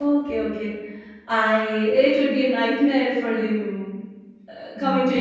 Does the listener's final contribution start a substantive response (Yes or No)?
No